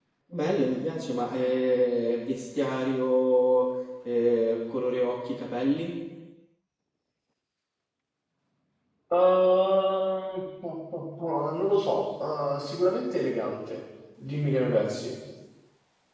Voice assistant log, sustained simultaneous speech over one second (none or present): none